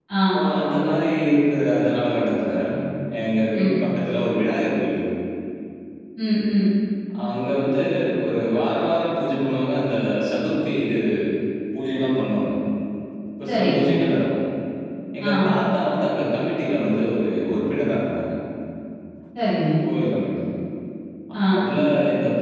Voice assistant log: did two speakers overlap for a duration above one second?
No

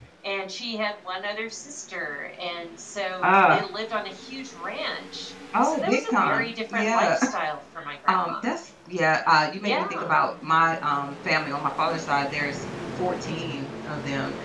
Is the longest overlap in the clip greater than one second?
Yes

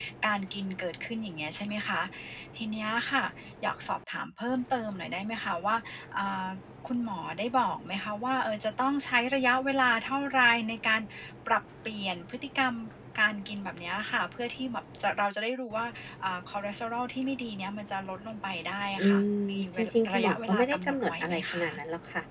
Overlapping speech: Yes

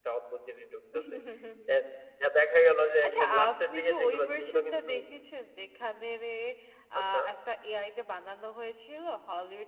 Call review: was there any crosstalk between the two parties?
Yes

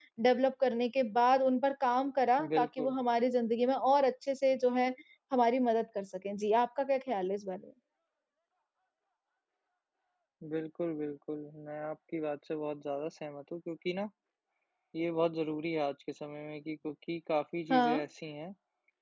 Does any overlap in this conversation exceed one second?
No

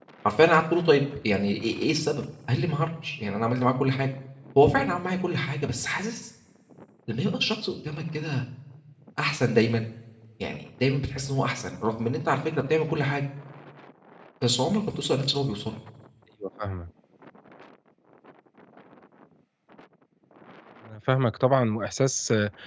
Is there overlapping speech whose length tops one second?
No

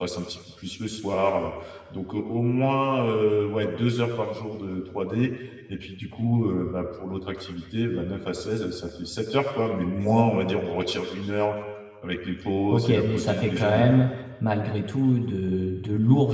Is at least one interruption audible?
Yes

